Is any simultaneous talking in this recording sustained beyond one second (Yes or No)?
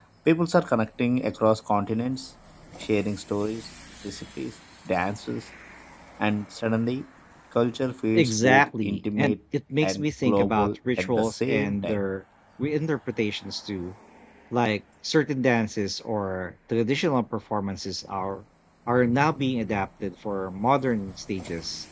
Yes